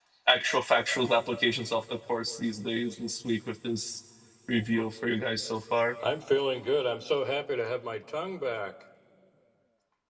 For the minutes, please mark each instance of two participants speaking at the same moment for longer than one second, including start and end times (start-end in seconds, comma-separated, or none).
none